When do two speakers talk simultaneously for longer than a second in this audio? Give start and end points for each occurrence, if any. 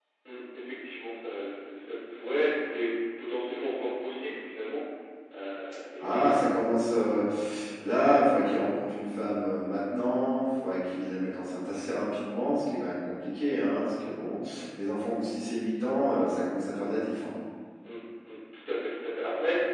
none

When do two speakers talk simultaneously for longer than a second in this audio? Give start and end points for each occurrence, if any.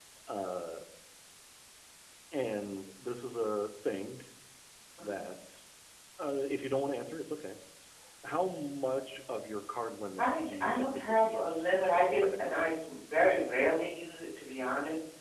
10.2-12.8

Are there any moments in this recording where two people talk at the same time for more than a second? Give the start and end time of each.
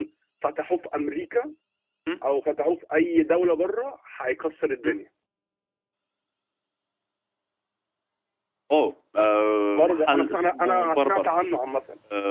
9.7-11.3

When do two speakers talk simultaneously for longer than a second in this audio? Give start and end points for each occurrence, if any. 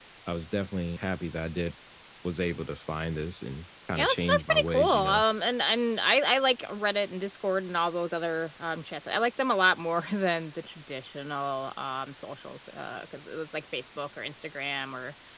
4.0-5.2

